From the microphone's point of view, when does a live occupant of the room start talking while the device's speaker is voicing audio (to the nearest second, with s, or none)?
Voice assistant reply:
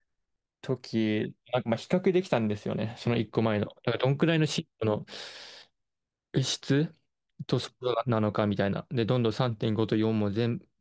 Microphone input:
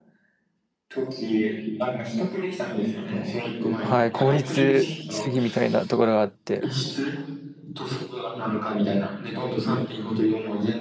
4 s